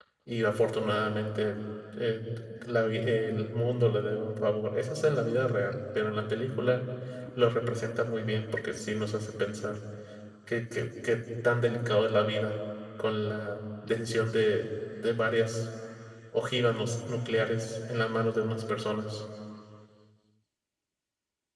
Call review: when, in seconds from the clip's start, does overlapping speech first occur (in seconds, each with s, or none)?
none